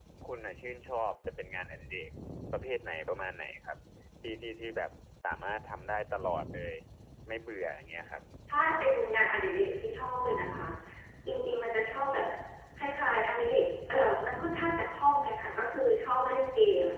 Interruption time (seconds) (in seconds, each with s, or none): none